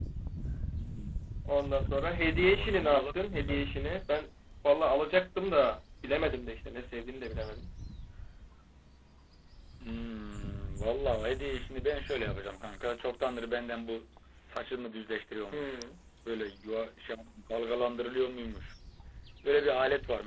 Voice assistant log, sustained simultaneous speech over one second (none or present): present